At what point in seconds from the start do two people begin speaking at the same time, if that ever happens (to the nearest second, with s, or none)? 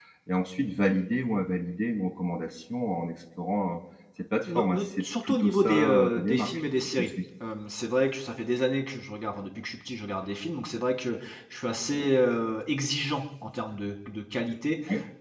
4 s